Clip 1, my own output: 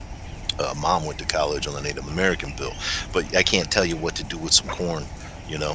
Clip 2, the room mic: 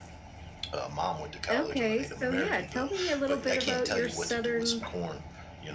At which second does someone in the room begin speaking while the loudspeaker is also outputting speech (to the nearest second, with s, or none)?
2 s